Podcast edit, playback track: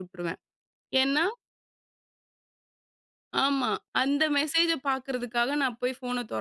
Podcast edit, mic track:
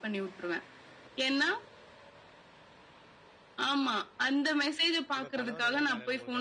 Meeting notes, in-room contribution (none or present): present